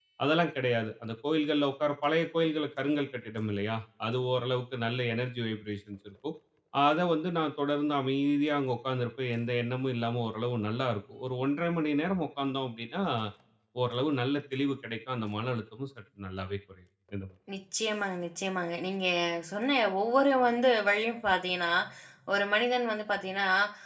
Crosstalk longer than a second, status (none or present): none